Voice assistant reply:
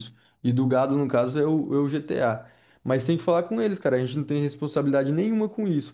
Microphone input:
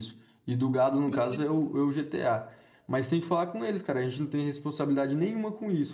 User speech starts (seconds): 1.0 s

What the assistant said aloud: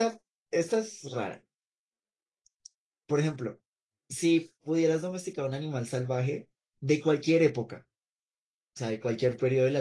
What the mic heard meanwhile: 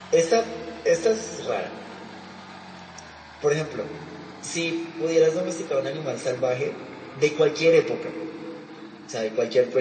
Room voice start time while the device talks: none

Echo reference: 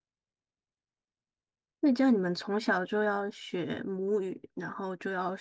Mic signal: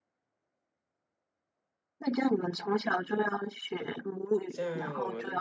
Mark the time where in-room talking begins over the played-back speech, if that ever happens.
4.5 s

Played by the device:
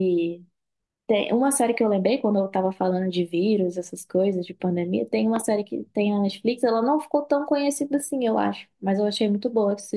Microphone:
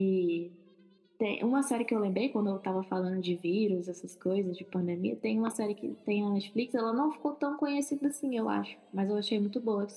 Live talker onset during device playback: none

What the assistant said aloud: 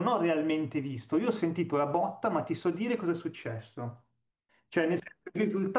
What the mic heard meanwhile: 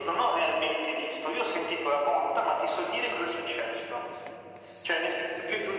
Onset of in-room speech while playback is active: none

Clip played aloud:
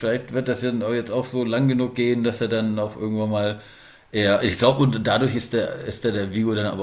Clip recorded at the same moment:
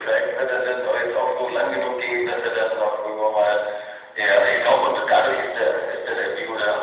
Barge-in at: none

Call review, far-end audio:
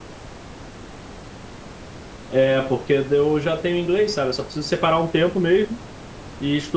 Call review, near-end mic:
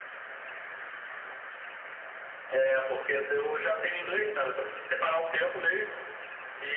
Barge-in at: none

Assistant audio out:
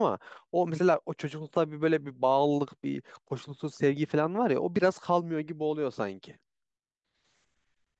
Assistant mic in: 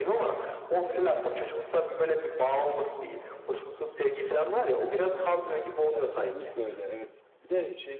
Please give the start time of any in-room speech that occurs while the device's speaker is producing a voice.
5.8 s

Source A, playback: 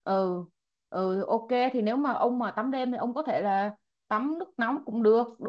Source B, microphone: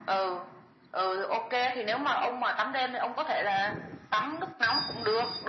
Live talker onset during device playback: none

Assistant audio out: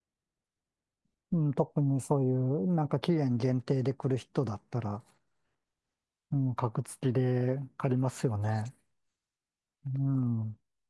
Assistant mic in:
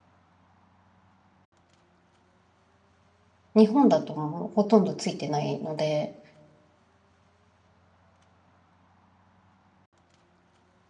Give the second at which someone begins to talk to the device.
3.5 s

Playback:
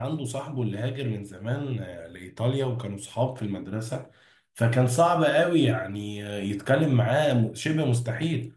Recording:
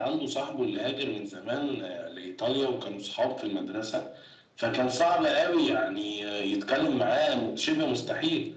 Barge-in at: none

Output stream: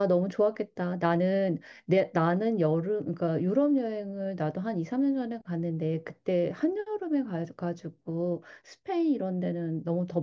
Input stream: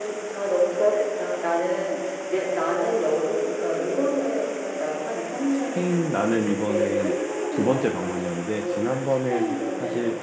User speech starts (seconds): 5.5 s

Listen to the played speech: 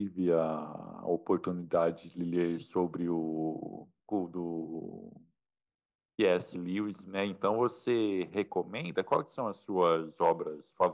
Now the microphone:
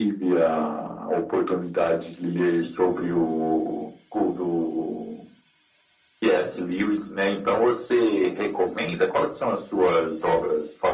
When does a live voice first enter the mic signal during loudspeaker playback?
none

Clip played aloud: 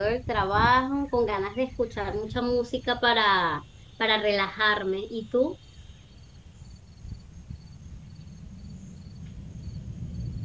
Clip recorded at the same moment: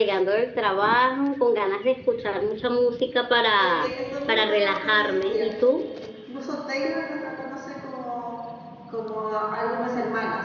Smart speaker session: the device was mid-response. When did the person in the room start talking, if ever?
3.6 s

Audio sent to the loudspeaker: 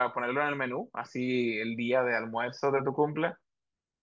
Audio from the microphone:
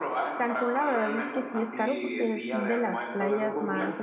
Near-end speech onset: 0.3 s

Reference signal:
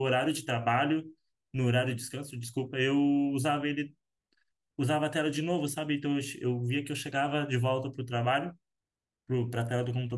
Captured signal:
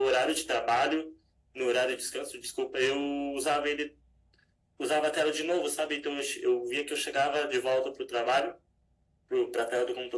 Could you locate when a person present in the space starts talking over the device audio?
none

